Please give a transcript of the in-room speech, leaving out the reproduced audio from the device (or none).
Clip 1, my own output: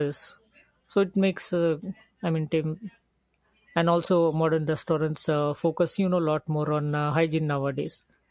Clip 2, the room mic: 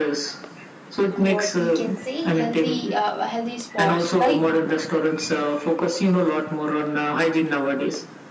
what we can say healthy uh, healthy spots, right?